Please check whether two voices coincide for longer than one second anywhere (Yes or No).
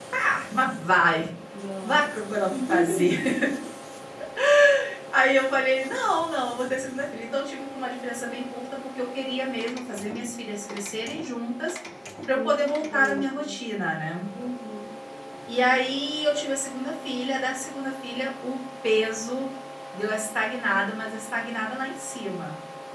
Yes